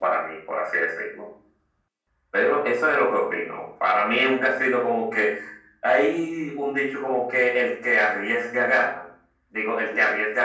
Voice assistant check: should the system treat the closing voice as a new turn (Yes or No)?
No